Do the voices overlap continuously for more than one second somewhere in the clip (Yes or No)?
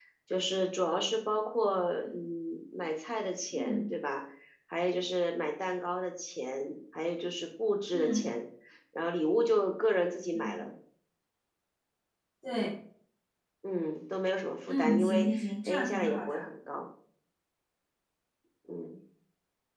Yes